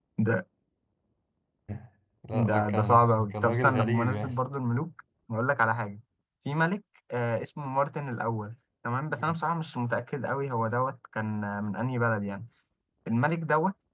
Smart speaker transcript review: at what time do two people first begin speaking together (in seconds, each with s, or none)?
2.3 s